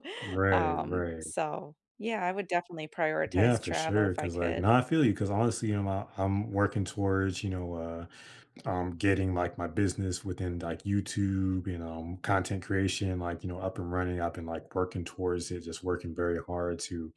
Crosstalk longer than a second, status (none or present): present